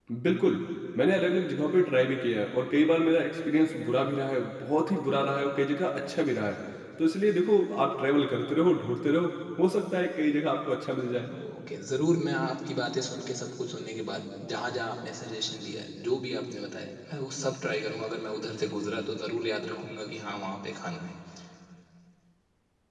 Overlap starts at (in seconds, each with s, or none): none